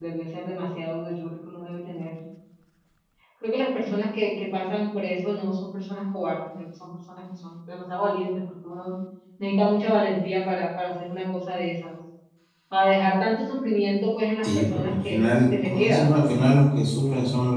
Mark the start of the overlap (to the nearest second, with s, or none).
14 s